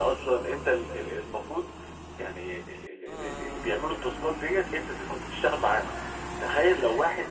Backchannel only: Yes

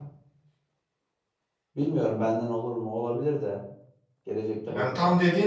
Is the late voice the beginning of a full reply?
Yes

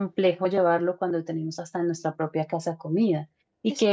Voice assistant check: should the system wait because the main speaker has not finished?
Yes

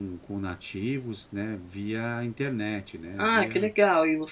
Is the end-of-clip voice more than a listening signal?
Yes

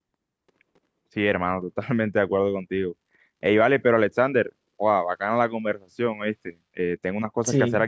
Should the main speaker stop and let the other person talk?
No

